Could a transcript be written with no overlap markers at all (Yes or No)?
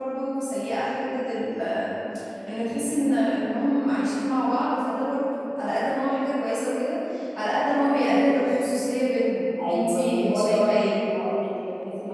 No